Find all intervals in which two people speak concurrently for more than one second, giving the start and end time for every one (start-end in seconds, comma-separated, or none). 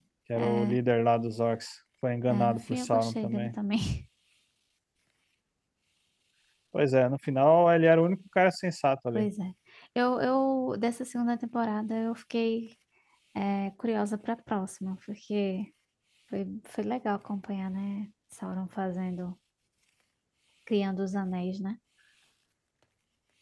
2.3-3.5